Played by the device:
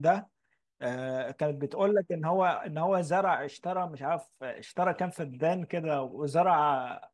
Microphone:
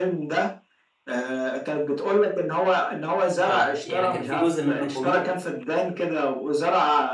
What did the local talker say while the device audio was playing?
ف يعني كان في جزء منه كوميدي

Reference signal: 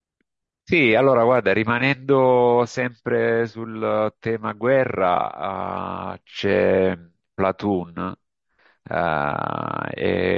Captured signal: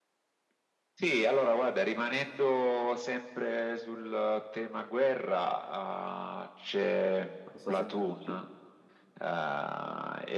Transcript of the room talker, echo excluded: non so se conosci.

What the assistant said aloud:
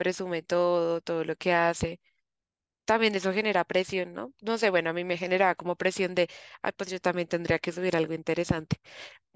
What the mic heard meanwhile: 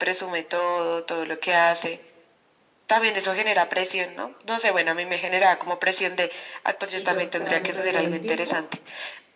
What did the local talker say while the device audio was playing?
y pues tras de perder el tiempo,

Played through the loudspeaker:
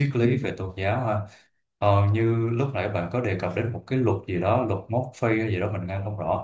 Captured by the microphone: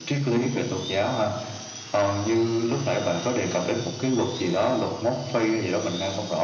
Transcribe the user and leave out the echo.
none

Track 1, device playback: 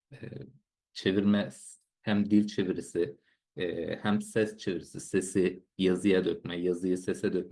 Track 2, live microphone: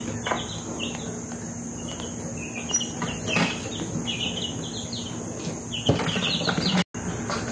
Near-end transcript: none

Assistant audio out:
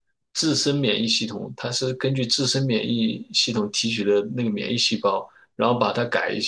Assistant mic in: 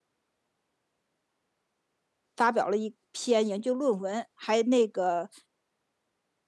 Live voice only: 发表了一篇研究论文，还那个

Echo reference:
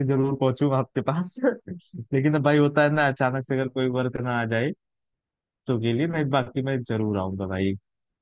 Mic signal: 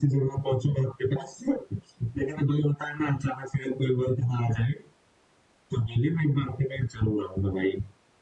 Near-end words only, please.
none

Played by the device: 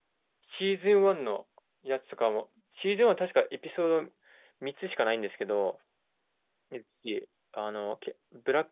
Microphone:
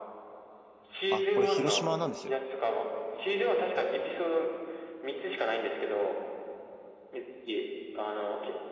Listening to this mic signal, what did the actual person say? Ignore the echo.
あ、これ広島なんですよ。

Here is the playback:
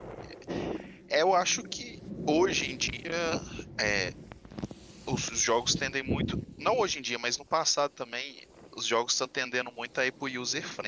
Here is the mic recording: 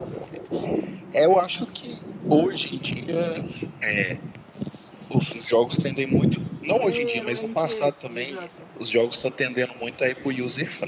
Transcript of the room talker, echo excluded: É, era um RTS, exato,

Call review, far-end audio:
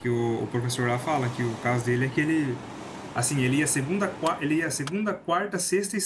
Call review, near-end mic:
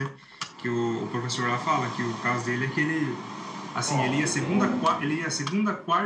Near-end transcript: Nossa, que pena.

